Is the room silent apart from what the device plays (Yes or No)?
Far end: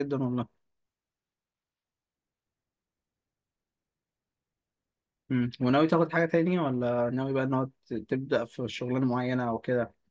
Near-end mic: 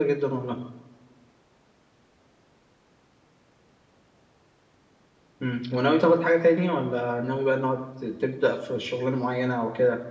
Yes